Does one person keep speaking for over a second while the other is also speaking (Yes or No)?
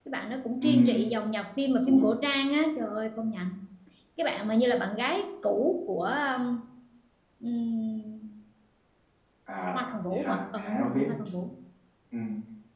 Yes